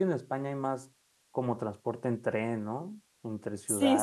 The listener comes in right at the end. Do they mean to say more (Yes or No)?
Yes